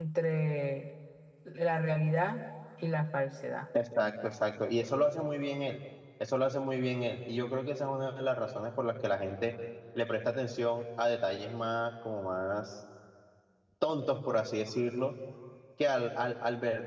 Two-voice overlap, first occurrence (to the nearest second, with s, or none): none